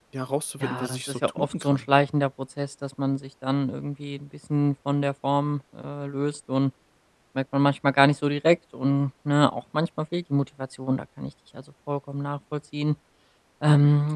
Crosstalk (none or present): present